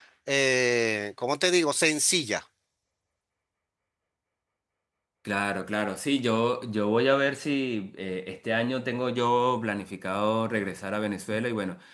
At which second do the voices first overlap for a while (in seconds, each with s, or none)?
none